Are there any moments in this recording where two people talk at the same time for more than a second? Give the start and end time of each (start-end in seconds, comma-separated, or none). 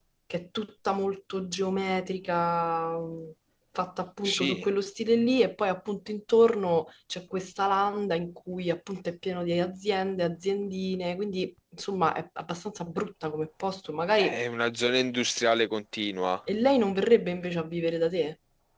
none